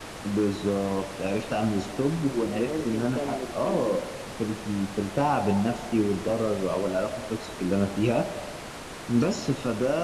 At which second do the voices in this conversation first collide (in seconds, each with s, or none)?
2.5 s